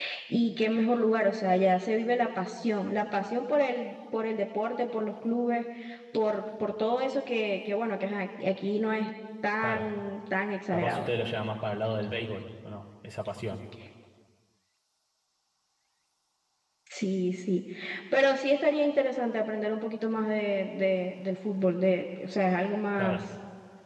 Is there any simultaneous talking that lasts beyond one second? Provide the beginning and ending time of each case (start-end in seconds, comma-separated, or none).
none